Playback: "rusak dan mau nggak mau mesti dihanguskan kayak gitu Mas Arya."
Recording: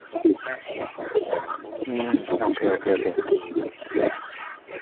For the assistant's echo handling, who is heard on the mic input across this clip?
both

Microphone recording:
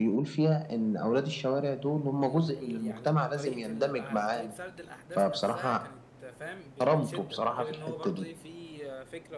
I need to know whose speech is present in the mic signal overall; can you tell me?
both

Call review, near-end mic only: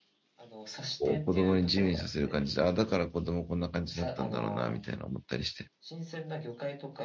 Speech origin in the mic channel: both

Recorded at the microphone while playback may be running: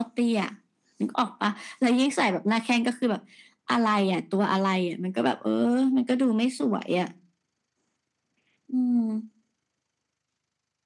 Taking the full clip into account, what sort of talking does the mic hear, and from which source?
echo only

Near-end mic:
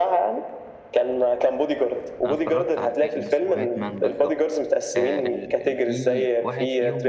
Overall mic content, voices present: both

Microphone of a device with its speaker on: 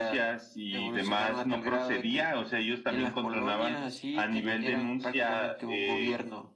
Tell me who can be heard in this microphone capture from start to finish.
echo only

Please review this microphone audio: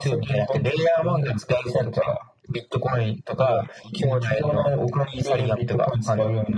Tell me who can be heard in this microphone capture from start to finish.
echo only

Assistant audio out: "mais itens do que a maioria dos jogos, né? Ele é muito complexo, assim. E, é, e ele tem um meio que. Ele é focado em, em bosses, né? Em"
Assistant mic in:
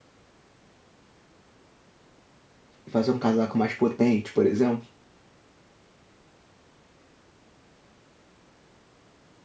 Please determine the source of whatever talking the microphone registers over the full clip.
user only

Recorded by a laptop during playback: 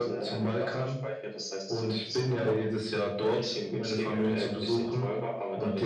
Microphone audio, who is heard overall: echo only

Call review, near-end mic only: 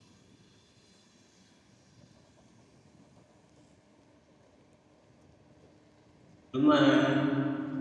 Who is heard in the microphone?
user only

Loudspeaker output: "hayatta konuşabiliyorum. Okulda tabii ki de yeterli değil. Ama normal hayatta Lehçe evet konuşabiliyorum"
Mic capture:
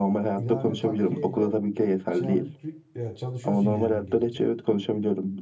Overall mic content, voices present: both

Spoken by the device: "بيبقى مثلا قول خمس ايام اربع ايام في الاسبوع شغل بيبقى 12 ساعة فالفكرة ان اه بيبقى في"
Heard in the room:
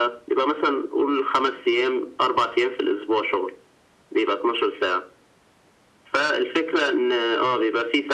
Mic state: echo only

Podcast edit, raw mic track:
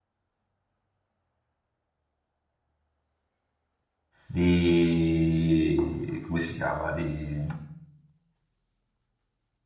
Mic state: user only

